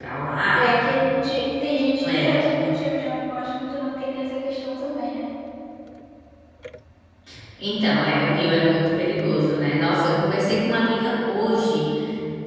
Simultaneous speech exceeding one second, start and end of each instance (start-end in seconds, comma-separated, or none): none